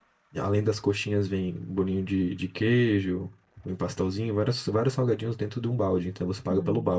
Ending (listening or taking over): taking over